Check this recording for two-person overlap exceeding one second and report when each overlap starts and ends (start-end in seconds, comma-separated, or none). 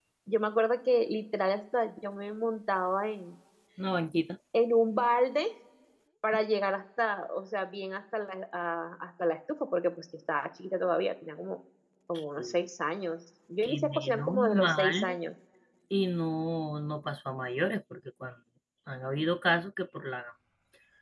13.6-15.2